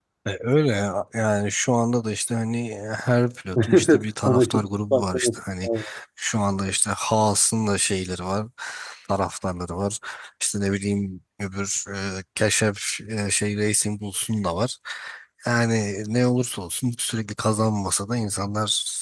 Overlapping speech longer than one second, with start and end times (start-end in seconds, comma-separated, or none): 3.7-5.7